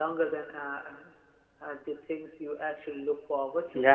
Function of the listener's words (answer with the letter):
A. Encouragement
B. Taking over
B